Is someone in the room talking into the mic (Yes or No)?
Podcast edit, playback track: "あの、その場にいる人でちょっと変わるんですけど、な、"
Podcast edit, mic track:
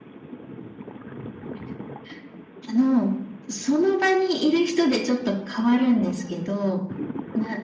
No